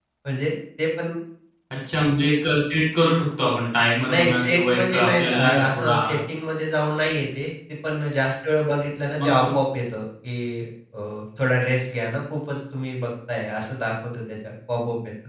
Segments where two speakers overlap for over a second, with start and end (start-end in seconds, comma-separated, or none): 4.1-6.2